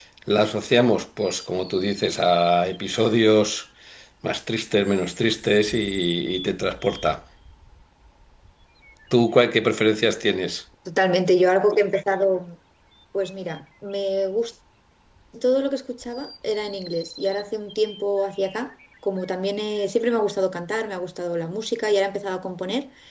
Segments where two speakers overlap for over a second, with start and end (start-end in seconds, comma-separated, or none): none